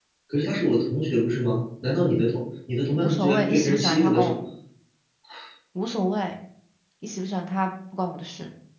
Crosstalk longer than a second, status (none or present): present